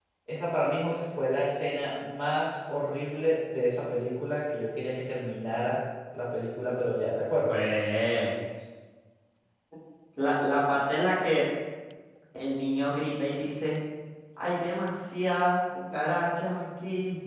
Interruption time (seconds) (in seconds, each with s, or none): none